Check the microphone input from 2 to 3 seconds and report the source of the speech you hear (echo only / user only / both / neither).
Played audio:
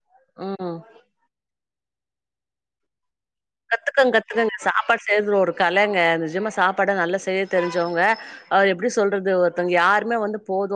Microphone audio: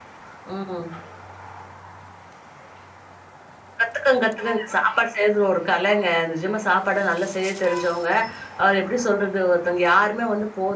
neither